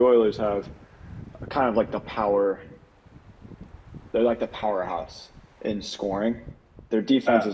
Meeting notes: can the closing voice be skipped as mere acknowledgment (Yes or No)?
Yes